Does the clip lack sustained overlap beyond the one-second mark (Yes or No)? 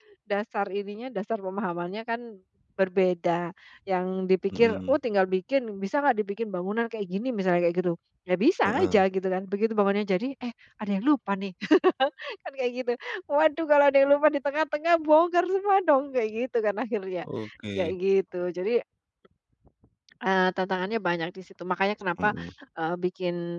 Yes